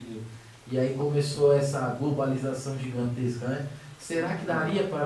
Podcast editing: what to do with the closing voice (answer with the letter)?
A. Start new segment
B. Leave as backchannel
B